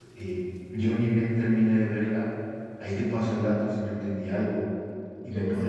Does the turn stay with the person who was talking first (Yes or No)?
No